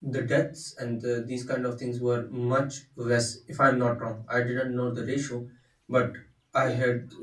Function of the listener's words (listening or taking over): listening